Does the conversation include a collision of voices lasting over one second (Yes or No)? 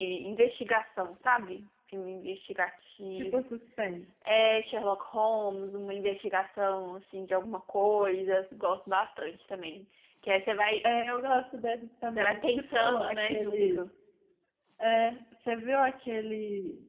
Yes